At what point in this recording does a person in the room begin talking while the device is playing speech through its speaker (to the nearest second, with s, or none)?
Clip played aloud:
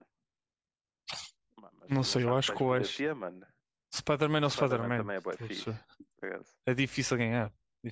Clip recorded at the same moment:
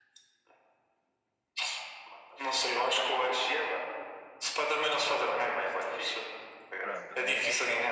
7 s